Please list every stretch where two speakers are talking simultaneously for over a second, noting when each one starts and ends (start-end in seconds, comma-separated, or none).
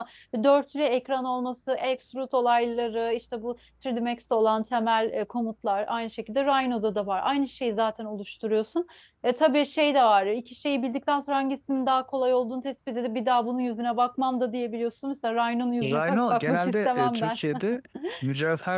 15.8-17.4